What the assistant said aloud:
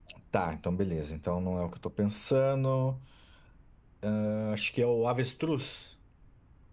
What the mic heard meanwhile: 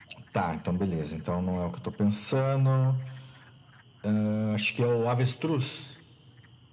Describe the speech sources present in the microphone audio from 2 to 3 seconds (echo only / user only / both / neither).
echo only